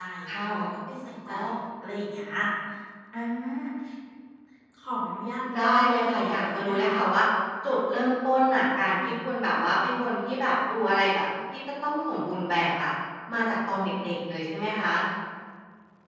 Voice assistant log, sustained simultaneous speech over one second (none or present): present